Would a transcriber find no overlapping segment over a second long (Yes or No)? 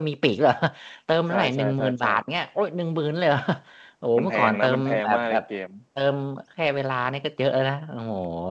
No